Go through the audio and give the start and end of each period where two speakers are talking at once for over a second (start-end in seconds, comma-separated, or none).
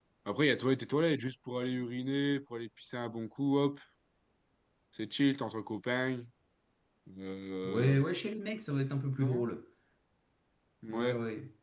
none